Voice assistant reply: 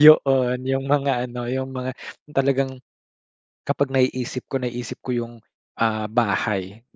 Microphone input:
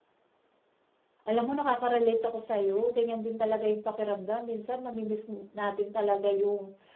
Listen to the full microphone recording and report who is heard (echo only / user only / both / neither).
user only